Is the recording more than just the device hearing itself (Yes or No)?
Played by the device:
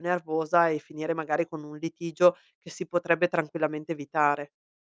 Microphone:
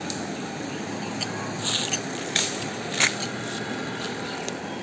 No